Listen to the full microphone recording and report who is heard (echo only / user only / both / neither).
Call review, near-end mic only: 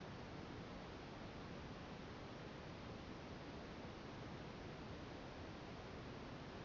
neither